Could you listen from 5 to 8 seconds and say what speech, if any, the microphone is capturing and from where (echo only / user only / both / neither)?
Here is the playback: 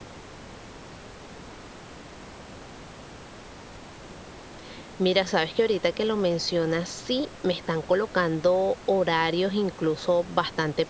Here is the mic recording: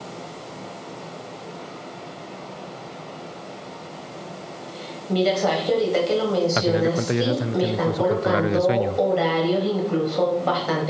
both